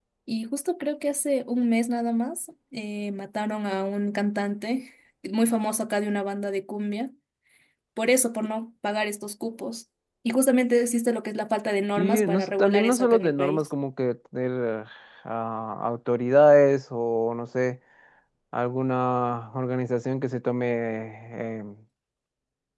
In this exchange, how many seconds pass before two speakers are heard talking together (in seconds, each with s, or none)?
12.0 s